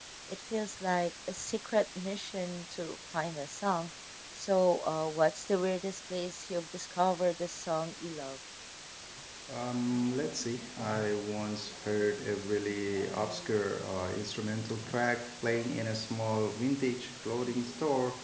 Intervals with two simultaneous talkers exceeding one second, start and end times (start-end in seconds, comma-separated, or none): none